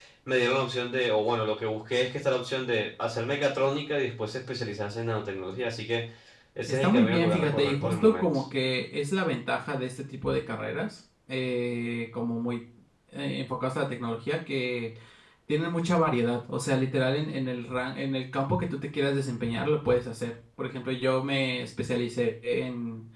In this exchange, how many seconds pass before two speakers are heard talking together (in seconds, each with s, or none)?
6.7 s